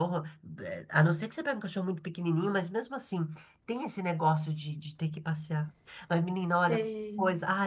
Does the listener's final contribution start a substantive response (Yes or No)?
No